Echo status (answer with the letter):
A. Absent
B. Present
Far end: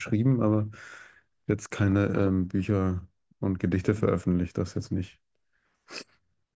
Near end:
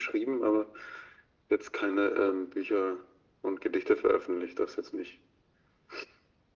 B